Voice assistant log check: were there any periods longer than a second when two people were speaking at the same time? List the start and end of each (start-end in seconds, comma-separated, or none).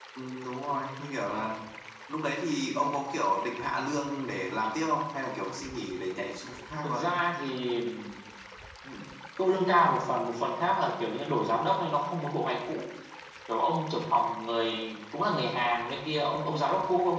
none